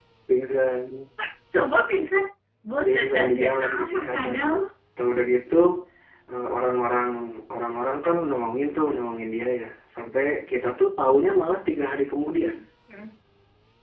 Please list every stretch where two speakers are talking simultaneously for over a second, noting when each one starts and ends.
2.9-4.5

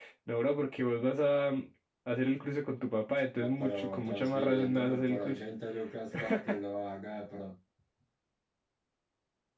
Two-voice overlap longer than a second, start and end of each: 3.4-5.4

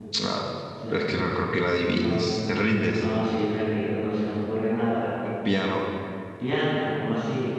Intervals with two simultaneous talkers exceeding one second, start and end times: none

